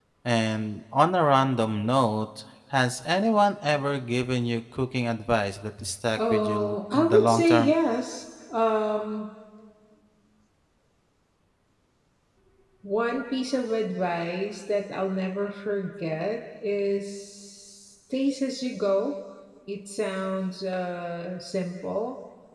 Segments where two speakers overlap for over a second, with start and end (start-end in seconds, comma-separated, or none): 6.2-7.7